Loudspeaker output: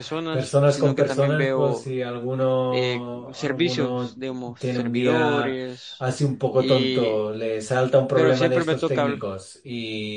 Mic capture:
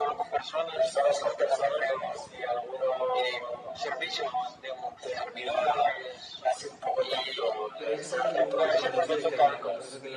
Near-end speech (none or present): present